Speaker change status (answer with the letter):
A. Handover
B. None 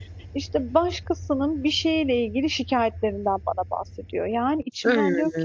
B